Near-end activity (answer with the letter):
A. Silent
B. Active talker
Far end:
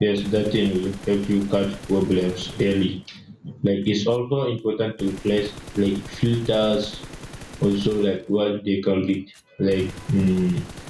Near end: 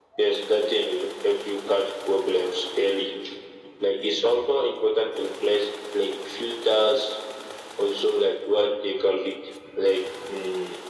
A